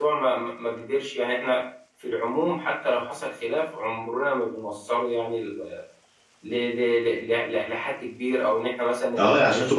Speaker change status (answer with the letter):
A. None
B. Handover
B